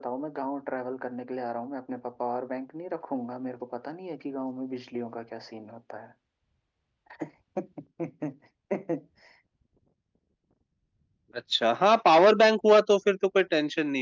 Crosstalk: none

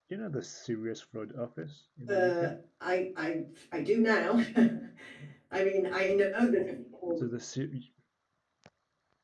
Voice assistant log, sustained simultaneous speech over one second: none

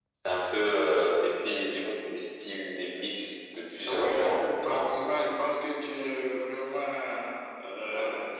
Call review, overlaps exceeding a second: present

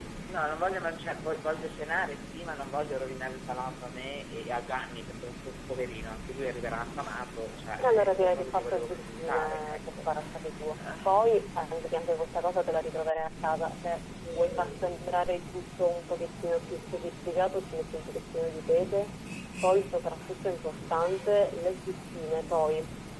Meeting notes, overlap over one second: present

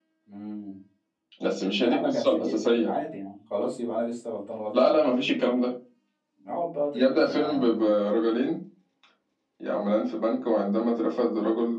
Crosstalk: present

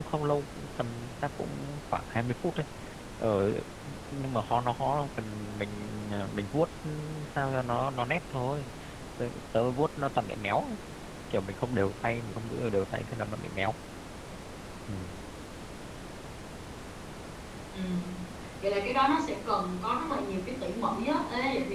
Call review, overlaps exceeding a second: none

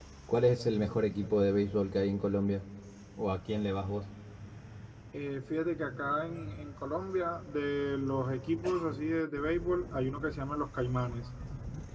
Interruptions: none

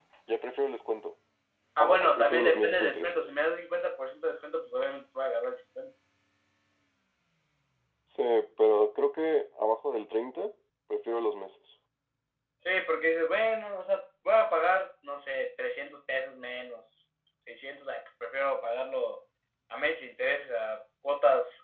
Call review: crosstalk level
present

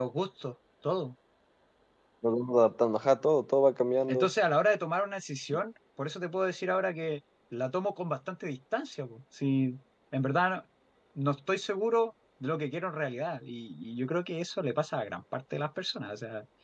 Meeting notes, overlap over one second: none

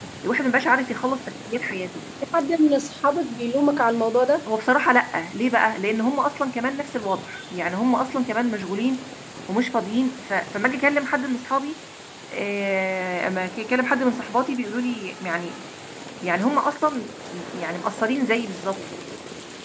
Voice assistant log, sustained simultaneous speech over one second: none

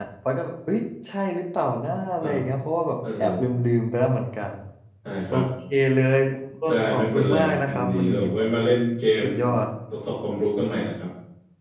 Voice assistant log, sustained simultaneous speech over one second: present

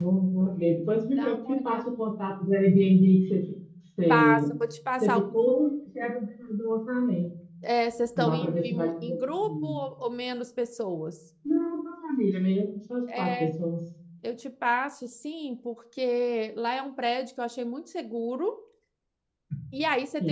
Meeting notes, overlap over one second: present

